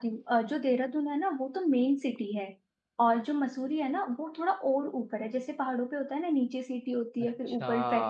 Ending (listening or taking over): listening